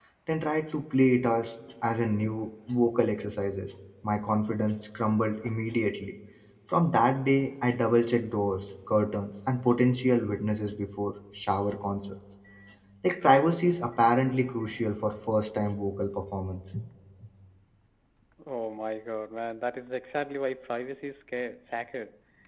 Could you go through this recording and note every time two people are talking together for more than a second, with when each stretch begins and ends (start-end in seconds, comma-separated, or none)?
none